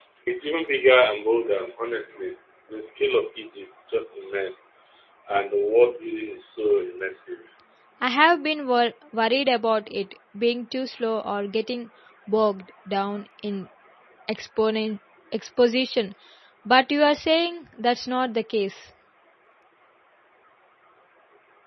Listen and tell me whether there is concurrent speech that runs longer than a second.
No

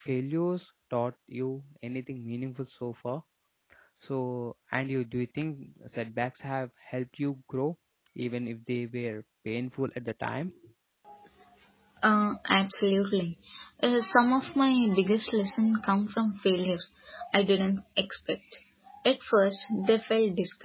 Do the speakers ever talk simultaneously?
No

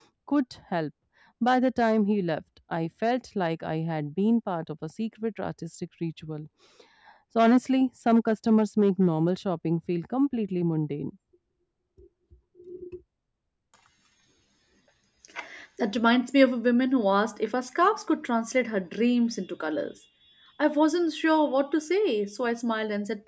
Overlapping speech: No

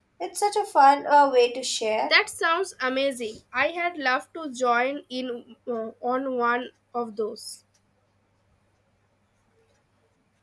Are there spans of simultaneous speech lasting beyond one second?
No

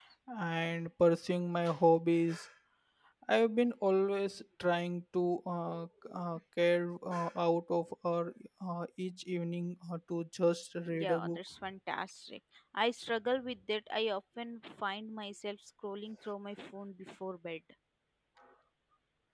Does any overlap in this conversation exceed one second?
No

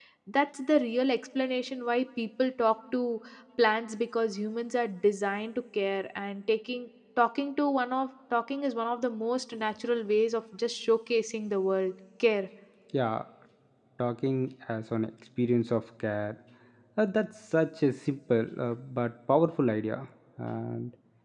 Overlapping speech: No

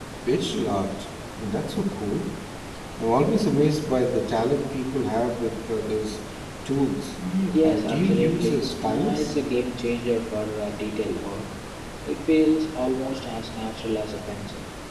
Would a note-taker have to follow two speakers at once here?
Yes, from 7.6 s

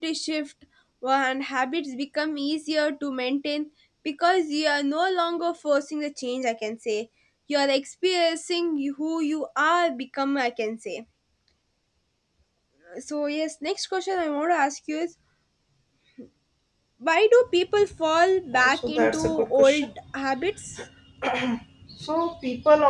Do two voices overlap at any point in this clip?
Yes, from 18.5 s

